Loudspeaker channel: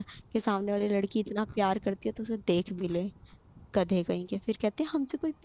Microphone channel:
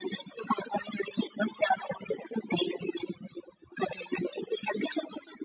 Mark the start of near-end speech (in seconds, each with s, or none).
none